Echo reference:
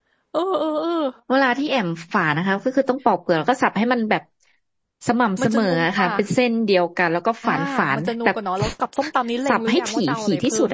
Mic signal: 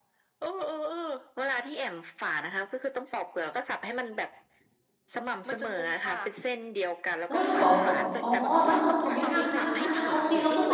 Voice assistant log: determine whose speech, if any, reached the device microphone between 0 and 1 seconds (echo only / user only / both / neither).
echo only